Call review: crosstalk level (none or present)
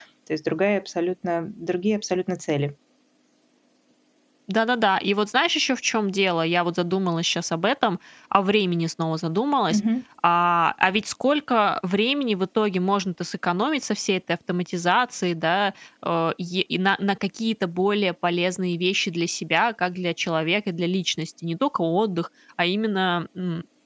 none